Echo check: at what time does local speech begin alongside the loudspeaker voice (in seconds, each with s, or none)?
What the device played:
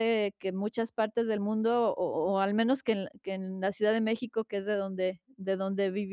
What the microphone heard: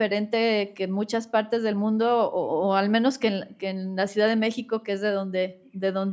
none